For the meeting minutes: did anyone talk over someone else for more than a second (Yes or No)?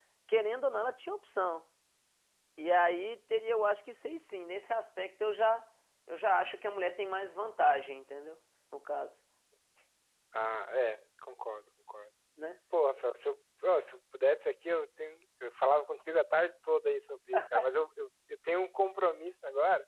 No